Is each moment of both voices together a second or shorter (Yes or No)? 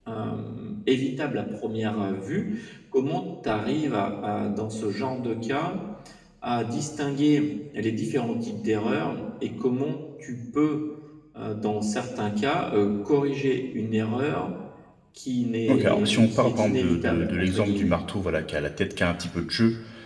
No